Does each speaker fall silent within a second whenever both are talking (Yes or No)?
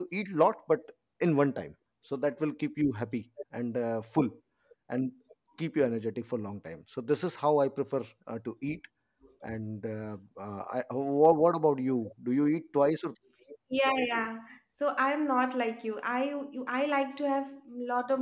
Yes